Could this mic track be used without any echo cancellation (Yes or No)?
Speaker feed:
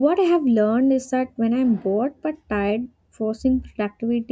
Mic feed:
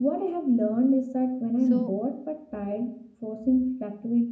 No